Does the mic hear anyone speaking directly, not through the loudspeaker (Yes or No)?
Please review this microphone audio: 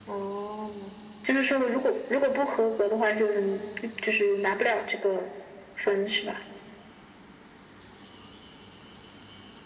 No